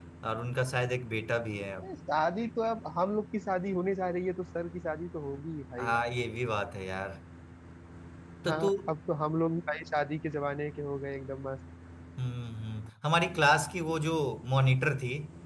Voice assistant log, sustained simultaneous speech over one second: none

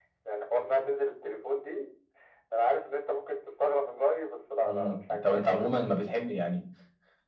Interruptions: present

